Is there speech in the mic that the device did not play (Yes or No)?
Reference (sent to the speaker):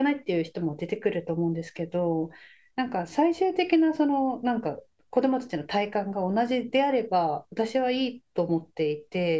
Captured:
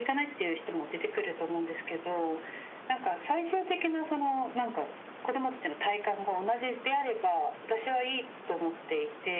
No